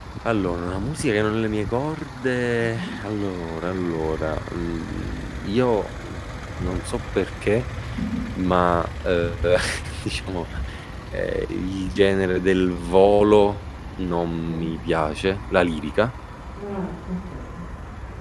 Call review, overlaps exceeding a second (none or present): none